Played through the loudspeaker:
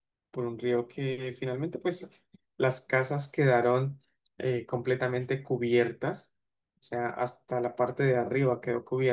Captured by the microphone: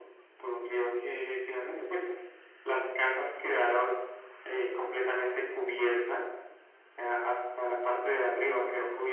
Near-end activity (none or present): none